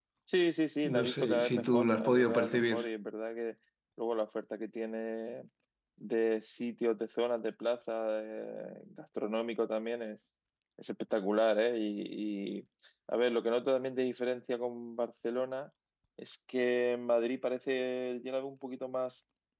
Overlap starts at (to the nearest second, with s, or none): 1 s